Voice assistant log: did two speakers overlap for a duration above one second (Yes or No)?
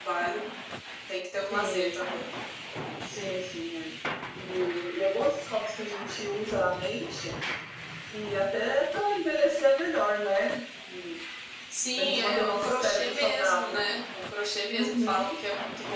Yes